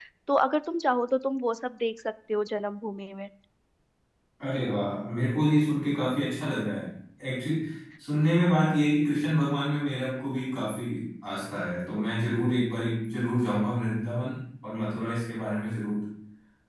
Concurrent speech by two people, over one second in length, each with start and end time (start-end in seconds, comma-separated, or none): none